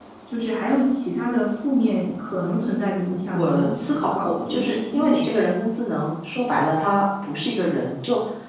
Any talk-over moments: Yes, from 3.3 s

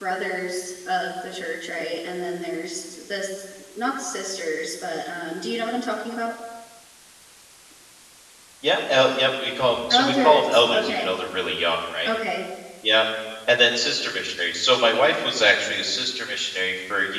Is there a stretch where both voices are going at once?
Yes, from 9.9 s

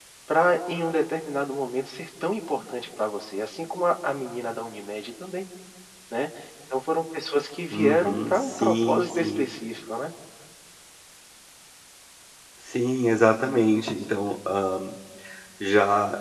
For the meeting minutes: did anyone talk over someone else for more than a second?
Yes, from 7.7 s

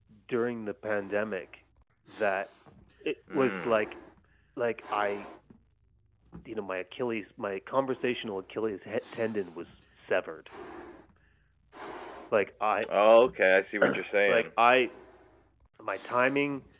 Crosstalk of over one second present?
No

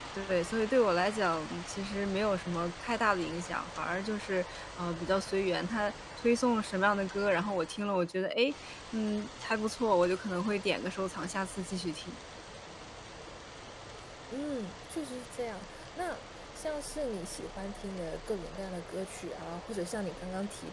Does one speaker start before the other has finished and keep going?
No

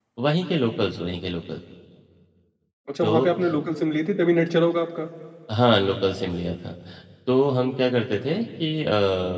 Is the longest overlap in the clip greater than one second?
No

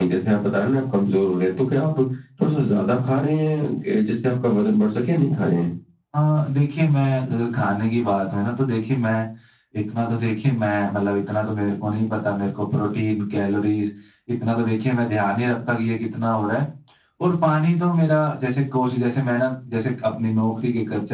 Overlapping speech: No

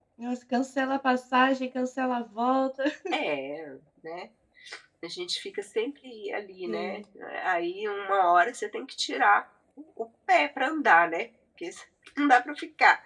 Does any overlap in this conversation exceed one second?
No

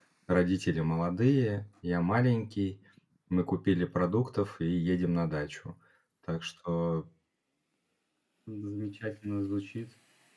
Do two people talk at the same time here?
No

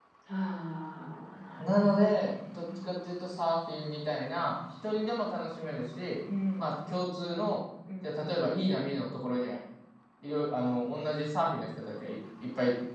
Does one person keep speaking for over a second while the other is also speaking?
Yes, from 1.6 s

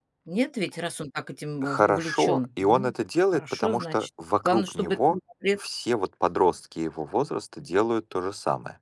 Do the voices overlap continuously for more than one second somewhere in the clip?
Yes, from 1.6 s

